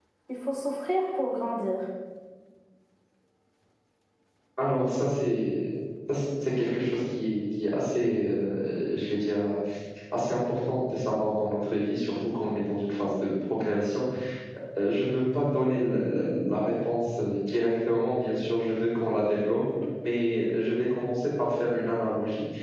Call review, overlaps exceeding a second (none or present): none